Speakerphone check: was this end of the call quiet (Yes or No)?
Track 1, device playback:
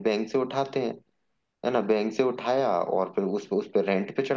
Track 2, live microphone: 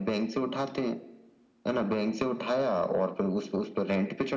Yes